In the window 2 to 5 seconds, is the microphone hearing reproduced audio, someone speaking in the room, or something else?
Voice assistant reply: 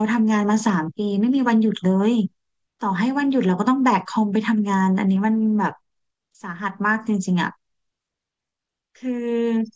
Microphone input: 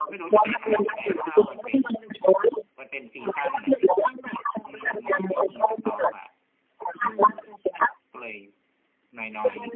both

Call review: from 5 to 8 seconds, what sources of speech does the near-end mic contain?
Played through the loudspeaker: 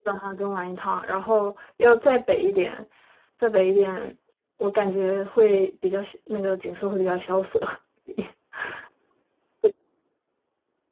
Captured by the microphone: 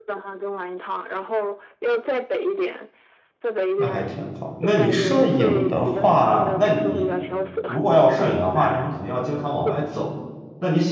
both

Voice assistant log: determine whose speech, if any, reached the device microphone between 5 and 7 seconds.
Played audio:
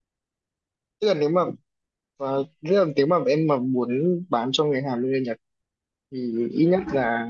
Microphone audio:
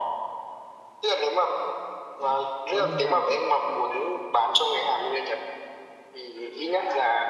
echo only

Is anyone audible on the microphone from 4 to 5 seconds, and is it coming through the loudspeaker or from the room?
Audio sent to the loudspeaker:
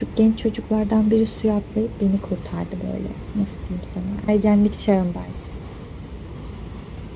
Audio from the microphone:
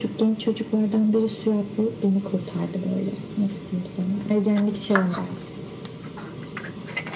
echo only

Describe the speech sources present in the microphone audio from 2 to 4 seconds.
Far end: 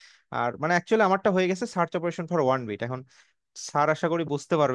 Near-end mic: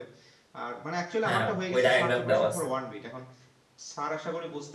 both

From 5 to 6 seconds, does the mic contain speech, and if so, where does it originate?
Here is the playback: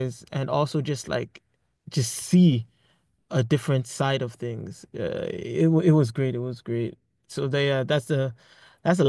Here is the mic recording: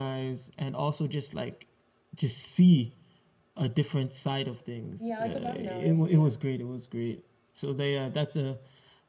both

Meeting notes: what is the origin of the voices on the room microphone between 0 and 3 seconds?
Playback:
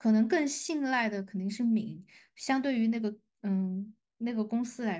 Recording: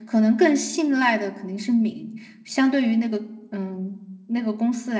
echo only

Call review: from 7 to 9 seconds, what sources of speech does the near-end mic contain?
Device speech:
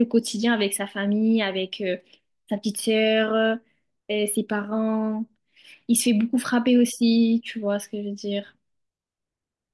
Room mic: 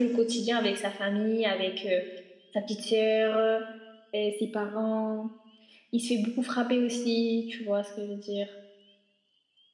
echo only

